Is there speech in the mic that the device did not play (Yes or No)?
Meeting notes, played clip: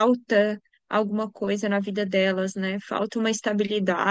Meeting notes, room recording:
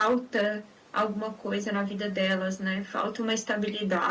No